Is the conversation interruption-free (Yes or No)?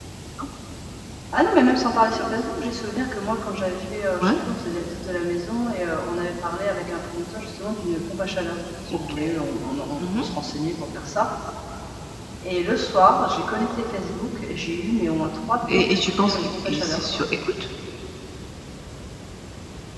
No